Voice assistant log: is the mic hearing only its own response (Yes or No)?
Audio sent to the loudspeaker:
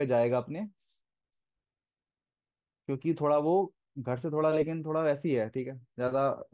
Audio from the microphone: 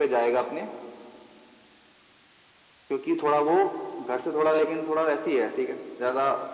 Yes